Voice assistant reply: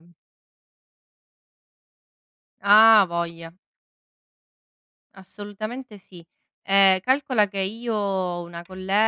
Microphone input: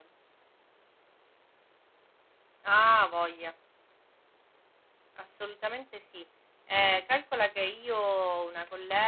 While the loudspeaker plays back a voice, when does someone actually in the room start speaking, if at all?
none

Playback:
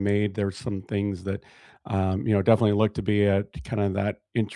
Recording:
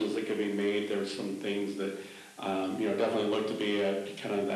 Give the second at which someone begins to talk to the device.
none

